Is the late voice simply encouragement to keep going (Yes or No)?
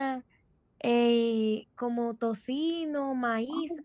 No